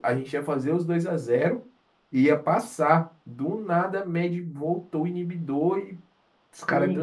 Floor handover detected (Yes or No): Yes